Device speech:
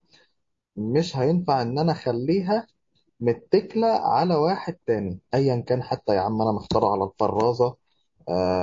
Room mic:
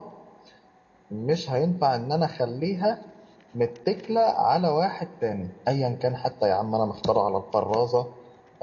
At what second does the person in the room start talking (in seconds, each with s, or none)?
none